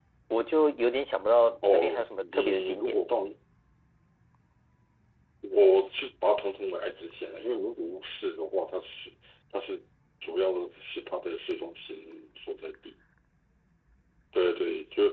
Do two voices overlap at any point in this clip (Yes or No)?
Yes